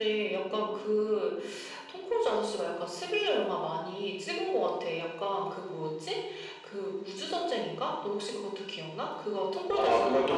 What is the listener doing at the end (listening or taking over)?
taking over